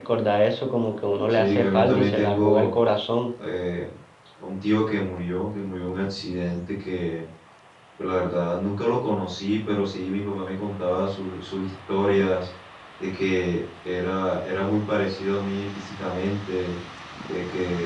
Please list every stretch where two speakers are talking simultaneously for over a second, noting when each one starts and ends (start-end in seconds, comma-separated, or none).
1.3-2.7